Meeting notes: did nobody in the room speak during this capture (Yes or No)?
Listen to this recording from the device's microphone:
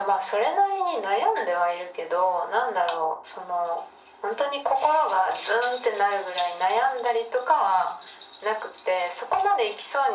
Yes